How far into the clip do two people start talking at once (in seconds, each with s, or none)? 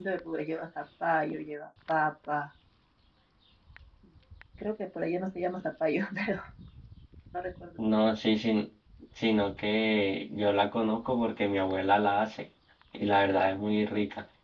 none